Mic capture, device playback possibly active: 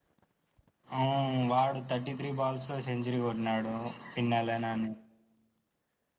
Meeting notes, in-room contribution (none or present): present